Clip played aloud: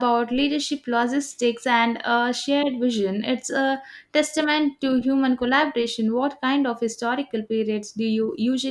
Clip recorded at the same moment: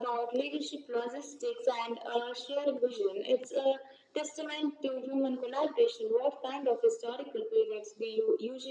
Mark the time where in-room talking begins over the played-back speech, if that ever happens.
none

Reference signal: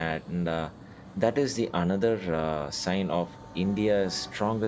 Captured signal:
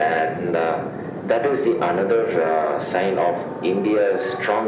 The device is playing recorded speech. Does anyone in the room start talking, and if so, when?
none

